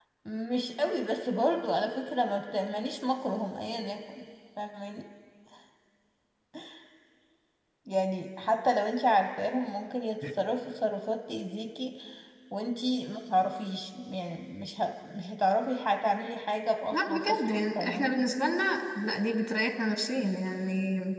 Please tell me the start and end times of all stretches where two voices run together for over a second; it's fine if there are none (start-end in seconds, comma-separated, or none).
16.9-18.2